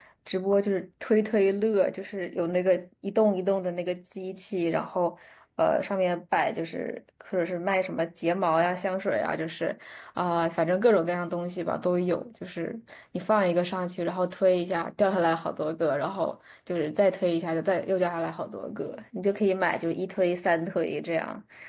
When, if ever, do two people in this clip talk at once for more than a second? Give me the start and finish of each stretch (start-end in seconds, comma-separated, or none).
none